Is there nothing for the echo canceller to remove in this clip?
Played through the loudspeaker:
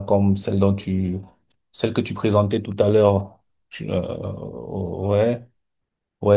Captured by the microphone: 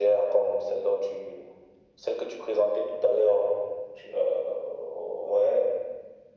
No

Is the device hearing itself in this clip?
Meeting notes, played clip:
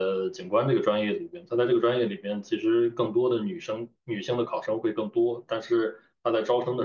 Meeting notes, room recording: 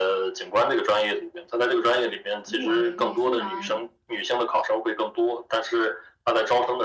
Yes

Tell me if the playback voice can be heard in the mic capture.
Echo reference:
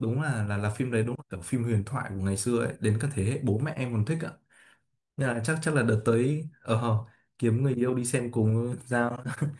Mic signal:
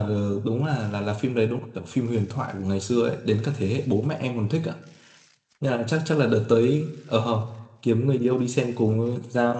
Yes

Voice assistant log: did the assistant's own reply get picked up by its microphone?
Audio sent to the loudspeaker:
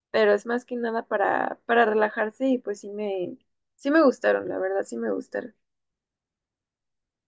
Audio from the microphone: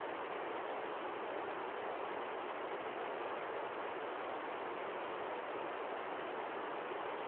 No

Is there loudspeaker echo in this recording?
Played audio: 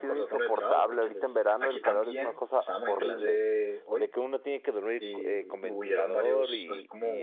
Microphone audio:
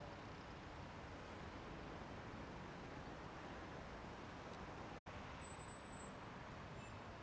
No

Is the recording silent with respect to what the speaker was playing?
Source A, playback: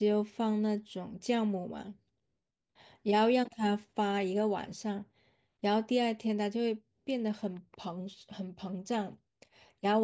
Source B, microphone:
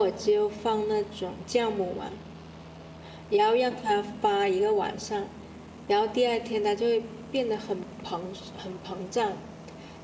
No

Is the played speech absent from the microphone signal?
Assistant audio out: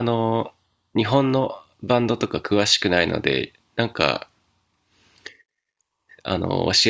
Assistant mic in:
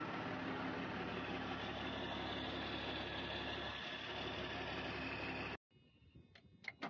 Yes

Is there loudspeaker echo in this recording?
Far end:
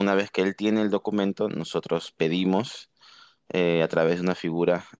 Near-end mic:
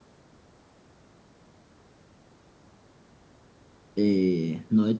No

